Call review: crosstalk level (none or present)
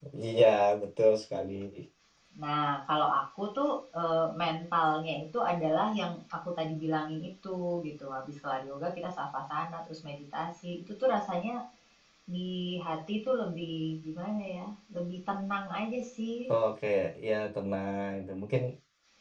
none